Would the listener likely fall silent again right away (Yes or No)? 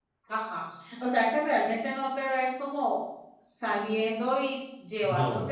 Yes